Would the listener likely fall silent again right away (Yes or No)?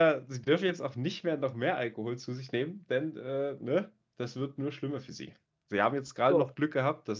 Yes